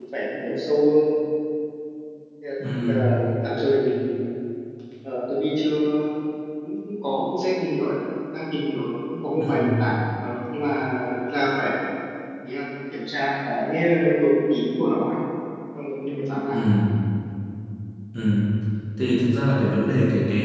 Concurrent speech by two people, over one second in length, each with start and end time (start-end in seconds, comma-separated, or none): none